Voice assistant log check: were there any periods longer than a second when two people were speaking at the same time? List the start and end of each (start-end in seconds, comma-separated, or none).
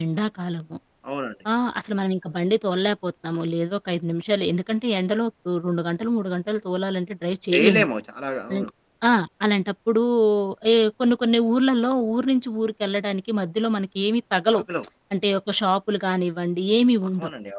none